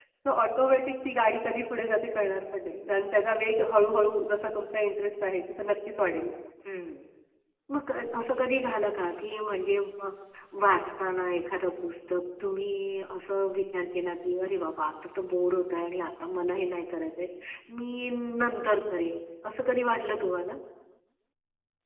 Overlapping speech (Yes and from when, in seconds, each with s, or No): No